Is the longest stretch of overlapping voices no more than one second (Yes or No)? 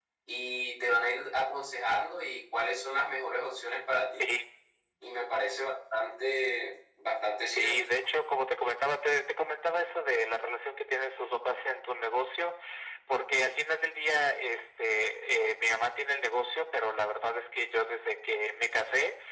Yes